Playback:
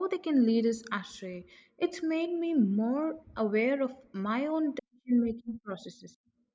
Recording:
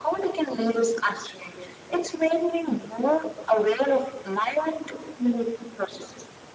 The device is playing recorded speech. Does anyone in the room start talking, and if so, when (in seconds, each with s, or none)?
none